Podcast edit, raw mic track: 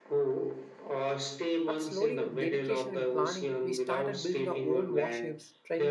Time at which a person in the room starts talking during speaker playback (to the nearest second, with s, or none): 2 s